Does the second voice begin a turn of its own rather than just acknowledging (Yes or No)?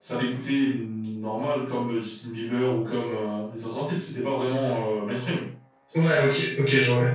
Yes